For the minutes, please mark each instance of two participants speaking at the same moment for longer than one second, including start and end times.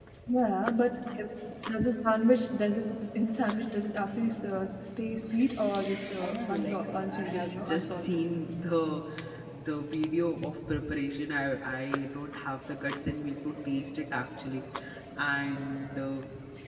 6.2-8.2

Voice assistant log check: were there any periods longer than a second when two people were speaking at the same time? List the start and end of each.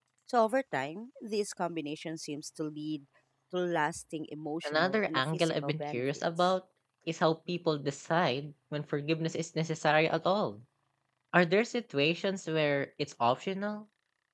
4.6-6.5

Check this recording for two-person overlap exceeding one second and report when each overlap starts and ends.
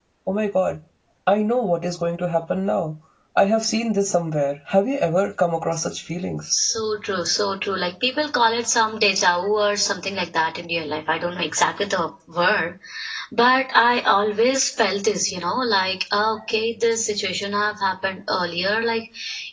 none

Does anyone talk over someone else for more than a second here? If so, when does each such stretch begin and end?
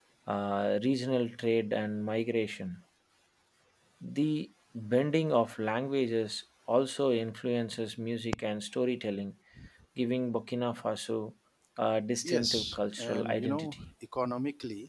12.2-13.9

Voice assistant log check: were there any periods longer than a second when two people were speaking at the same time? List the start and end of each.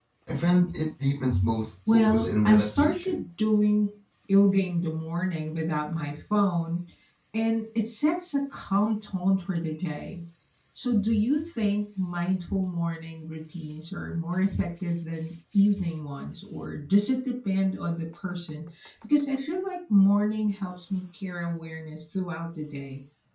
1.9-3.2

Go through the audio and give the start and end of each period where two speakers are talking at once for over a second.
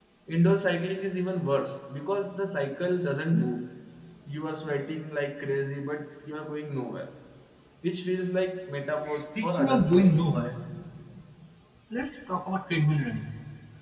9.1-10.3

